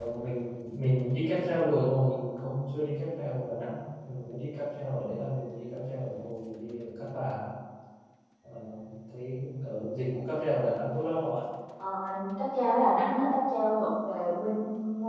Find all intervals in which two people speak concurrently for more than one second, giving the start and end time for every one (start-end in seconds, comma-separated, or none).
none